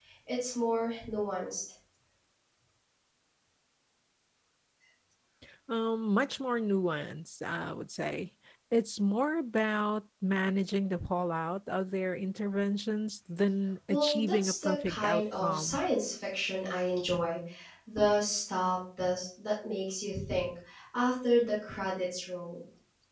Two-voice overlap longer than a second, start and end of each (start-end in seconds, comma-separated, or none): 13.9-15.8